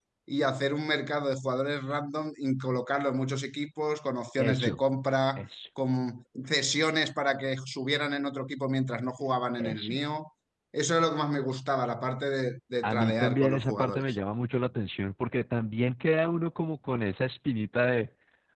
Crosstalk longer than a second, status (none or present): present